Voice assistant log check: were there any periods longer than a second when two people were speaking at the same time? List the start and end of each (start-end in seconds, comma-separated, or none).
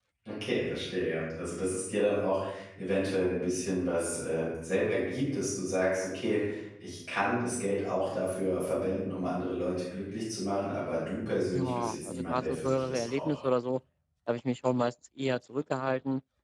11.5-13.4